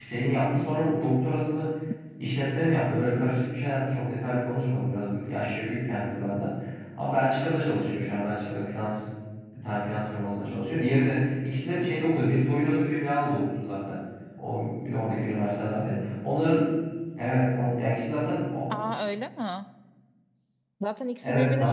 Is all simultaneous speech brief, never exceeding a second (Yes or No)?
Yes